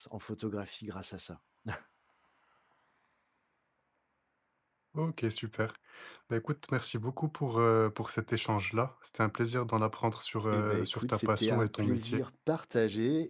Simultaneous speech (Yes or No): Yes